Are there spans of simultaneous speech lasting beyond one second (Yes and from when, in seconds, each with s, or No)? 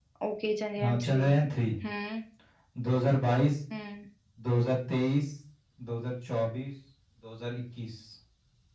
No